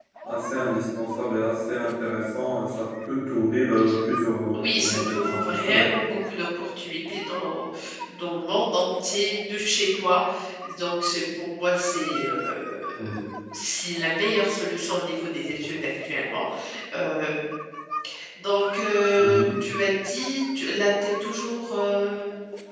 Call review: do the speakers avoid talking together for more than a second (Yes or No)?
No